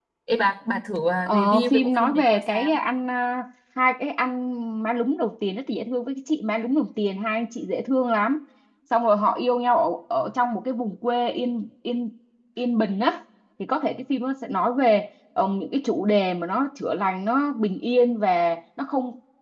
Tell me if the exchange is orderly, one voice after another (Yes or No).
No